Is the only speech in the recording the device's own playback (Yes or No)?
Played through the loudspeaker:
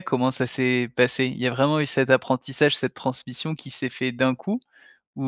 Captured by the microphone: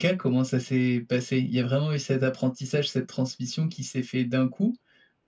Yes